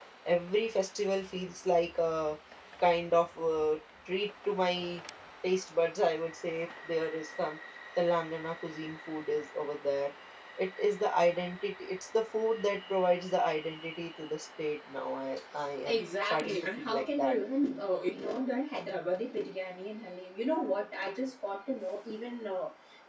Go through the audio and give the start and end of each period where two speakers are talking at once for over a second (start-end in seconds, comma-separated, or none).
15.8-17.4